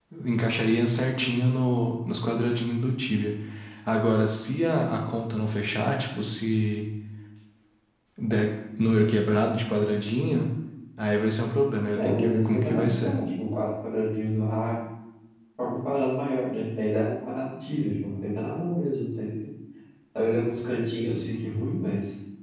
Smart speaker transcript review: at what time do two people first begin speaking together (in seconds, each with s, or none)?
11.9 s